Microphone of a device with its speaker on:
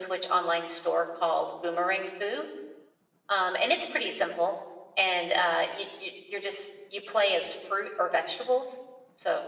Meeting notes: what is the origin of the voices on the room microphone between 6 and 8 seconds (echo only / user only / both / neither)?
echo only